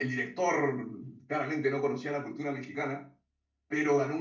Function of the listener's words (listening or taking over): listening